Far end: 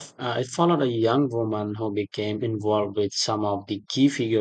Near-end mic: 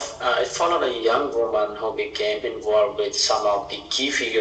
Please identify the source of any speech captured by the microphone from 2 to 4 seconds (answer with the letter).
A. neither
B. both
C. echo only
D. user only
C